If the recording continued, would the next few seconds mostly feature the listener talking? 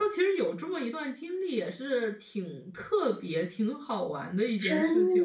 Yes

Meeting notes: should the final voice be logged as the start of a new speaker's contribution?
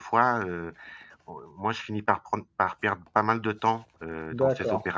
Yes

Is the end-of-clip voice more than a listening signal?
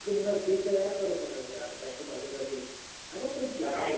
Yes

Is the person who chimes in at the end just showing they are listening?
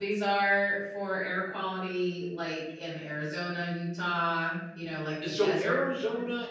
No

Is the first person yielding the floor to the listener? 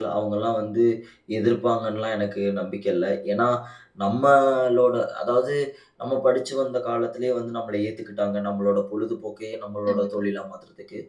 No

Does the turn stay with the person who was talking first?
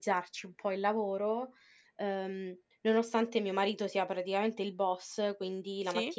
Yes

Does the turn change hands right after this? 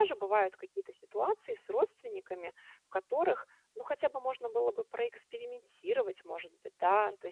No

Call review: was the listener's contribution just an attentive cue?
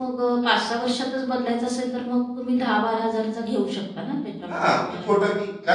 No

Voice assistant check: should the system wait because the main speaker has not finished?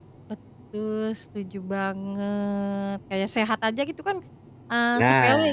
Yes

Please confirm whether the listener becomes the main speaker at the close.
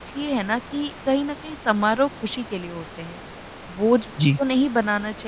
No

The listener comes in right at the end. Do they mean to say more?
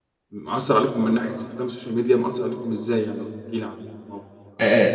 Yes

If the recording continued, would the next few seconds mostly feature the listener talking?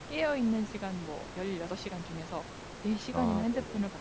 No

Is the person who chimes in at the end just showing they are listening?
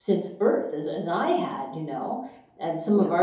Yes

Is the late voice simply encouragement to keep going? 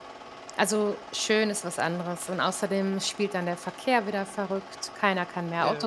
Yes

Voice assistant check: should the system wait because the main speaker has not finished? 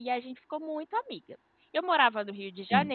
Yes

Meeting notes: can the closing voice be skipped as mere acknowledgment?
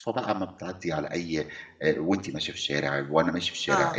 No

